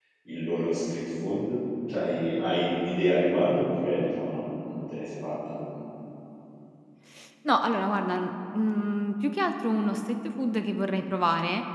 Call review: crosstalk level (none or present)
none